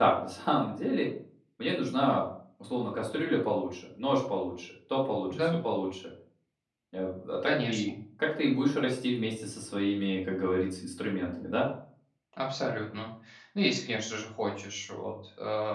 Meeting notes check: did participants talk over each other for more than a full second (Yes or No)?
No